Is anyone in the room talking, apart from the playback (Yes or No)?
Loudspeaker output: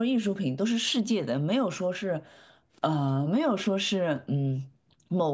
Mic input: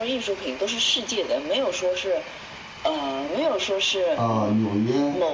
Yes